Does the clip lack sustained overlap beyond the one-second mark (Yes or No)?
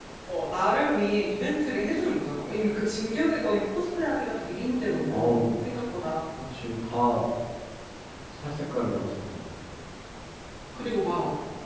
Yes